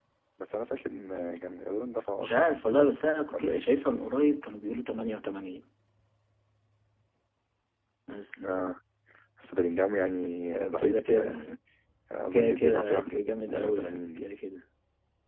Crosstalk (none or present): present